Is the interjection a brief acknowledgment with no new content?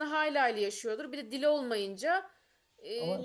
Yes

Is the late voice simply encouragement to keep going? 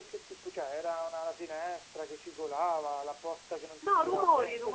No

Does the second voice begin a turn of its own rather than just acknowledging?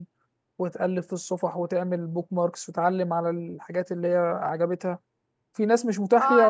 Yes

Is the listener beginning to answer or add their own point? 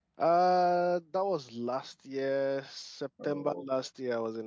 No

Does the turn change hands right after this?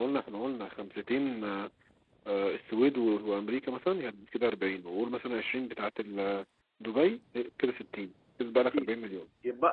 Yes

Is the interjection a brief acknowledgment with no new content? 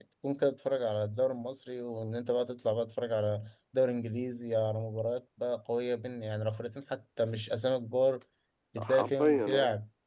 No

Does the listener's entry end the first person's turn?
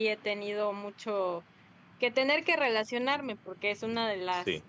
No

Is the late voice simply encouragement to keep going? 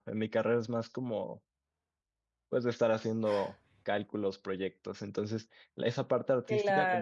Yes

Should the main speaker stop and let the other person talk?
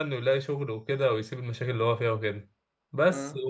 No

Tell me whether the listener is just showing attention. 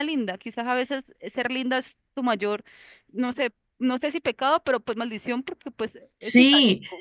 No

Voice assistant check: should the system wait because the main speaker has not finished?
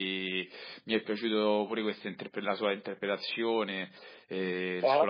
Yes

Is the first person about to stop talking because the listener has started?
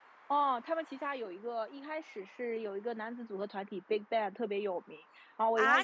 Yes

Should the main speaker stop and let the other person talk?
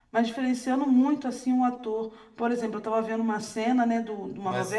No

